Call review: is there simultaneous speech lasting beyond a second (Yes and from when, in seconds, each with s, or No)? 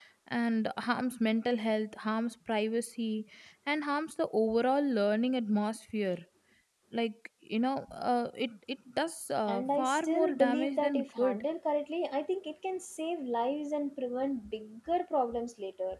Yes, from 9.5 s